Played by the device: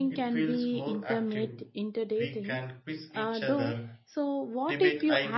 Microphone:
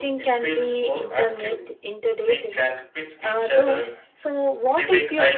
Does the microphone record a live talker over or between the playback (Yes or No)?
No